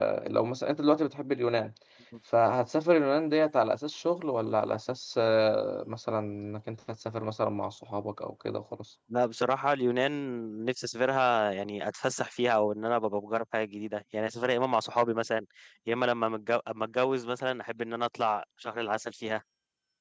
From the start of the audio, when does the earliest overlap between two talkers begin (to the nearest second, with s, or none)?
none